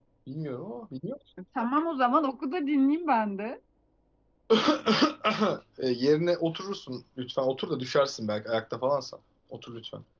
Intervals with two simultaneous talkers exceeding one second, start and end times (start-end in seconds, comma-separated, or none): none